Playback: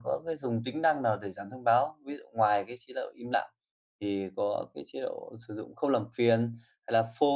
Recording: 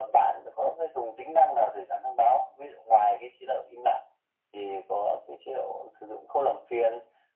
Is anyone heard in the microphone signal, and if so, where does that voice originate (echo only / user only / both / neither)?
echo only